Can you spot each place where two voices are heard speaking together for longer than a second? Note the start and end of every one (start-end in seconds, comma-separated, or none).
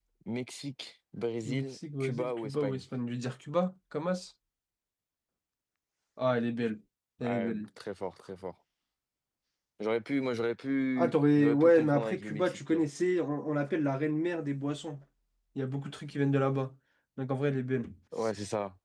1.4-2.8, 11.0-12.8